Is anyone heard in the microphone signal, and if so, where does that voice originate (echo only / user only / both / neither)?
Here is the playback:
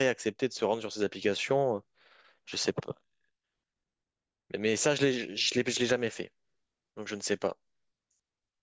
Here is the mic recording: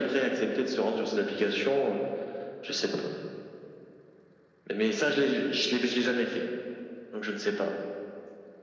echo only